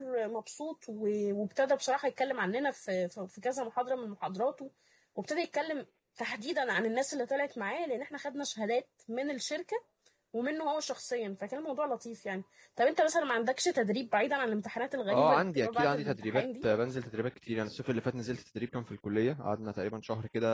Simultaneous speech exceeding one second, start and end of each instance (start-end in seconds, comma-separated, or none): 15.1-16.6